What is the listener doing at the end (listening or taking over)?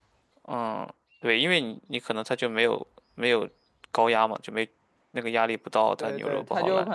taking over